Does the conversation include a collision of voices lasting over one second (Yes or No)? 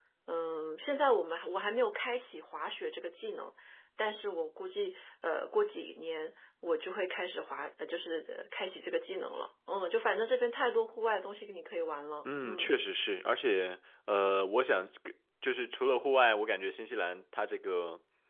No